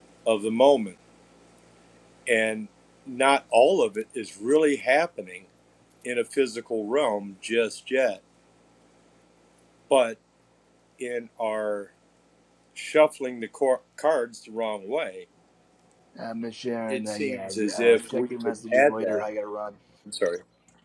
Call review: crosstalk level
present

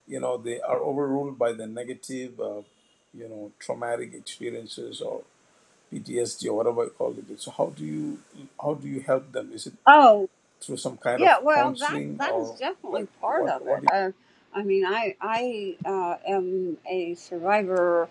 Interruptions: present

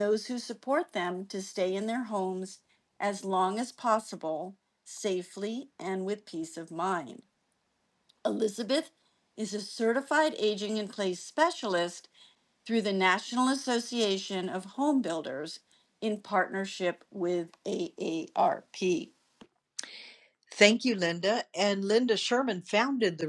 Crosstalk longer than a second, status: none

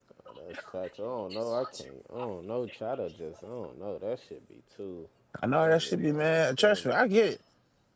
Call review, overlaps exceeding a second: present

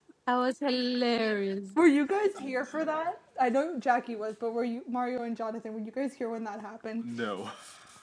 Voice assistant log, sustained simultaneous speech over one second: none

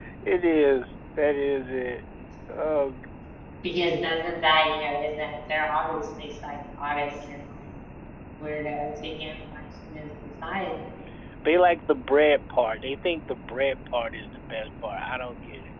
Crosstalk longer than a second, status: none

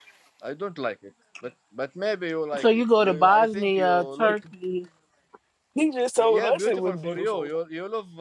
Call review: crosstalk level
present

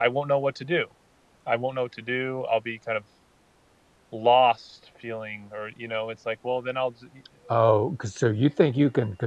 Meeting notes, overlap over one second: none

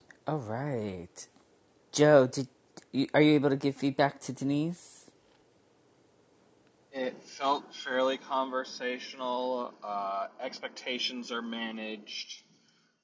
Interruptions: none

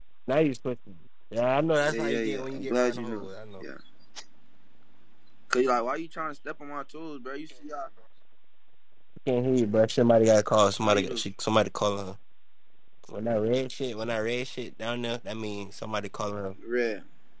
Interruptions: present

